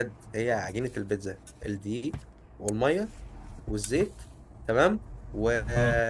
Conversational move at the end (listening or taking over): listening